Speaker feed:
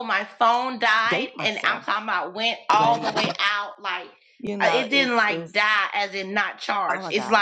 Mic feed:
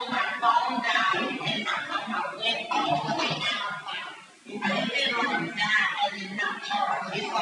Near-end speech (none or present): none